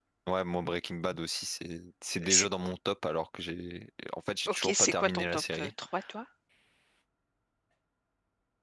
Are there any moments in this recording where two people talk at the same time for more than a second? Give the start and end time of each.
4.5-5.7

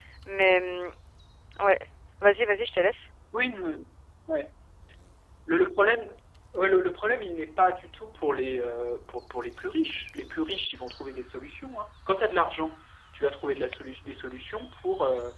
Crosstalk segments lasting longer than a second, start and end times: none

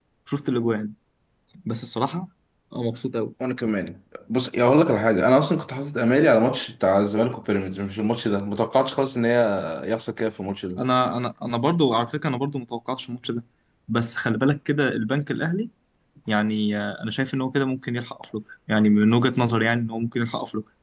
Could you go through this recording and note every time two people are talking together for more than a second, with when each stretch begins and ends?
none

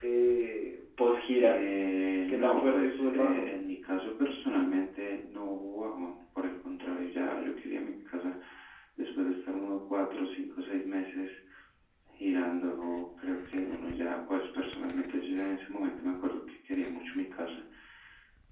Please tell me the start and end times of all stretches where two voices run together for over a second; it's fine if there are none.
2.3-3.5

